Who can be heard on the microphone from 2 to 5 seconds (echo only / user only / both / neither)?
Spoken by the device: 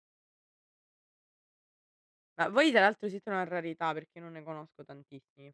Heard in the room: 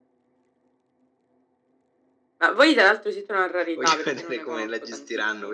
both